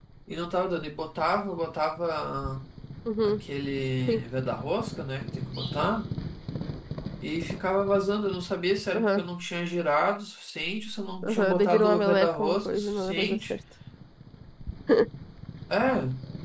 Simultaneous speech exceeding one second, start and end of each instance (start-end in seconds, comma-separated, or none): 11.2-13.5